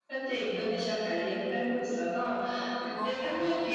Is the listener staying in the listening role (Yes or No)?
Yes